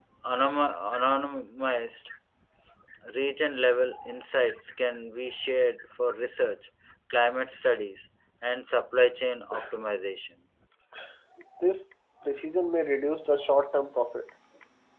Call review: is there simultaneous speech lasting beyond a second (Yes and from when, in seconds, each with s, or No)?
No